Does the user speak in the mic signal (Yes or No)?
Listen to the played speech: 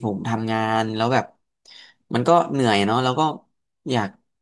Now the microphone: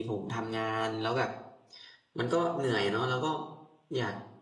No